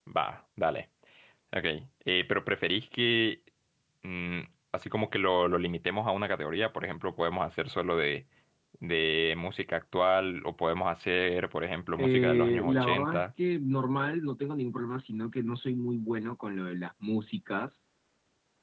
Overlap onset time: 12.0 s

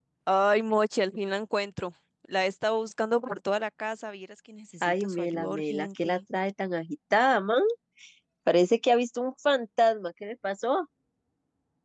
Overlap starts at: 4.8 s

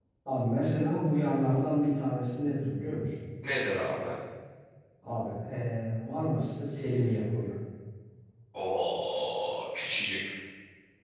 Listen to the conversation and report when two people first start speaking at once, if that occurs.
none

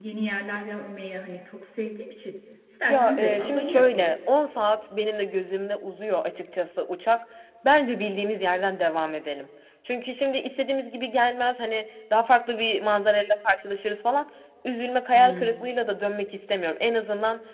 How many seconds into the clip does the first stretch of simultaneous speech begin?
2.8 s

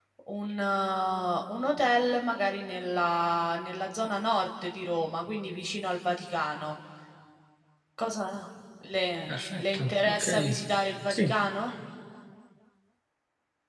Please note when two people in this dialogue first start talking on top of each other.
9.3 s

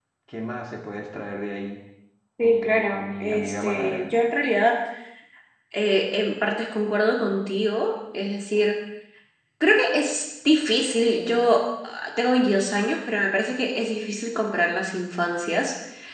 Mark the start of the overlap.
2.4 s

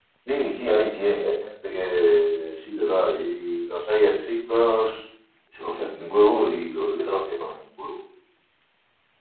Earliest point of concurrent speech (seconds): none

